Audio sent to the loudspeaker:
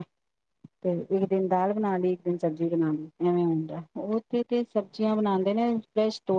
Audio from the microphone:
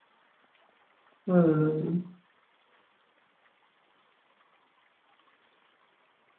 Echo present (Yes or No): No